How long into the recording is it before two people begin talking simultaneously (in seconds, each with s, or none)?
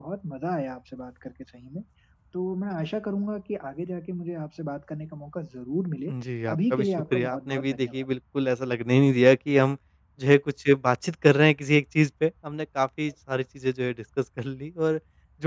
6.5 s